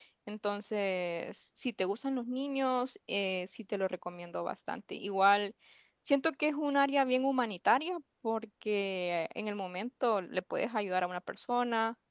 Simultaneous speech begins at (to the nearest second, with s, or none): none